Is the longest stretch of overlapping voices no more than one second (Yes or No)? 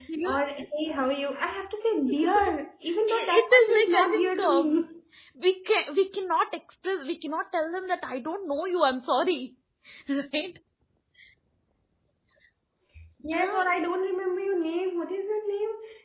No